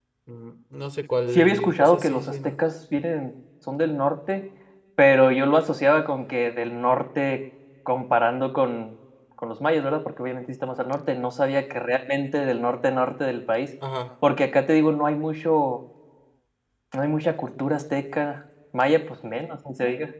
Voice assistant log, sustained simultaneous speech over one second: present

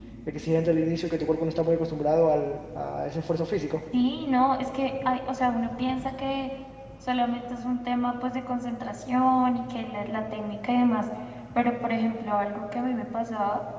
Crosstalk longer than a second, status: none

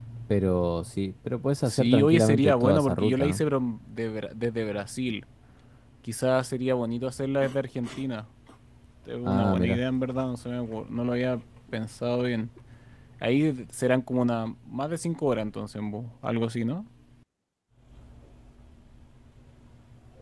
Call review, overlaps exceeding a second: present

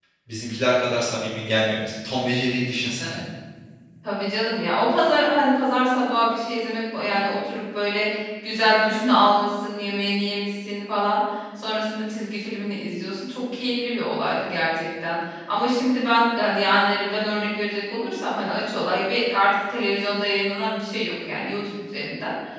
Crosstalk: none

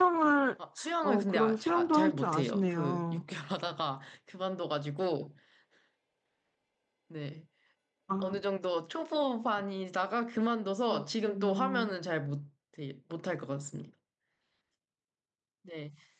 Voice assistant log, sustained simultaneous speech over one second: present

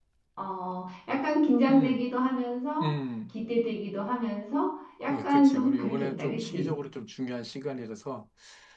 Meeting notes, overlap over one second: present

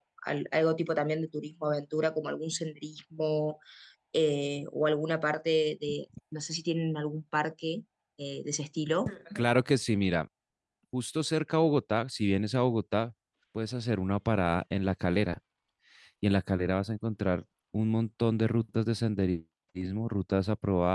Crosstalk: none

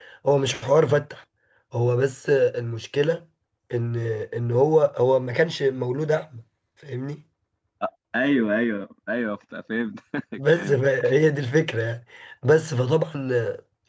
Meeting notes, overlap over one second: none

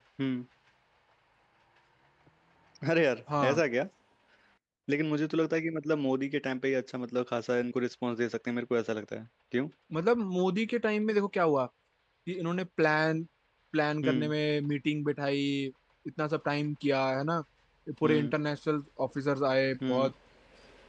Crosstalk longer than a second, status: none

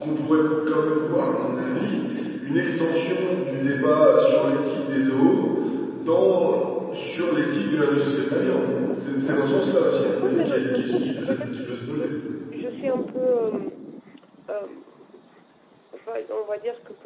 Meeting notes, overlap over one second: present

